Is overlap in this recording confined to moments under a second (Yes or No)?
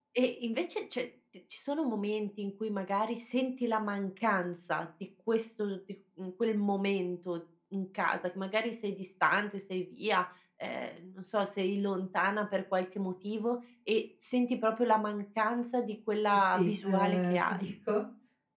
No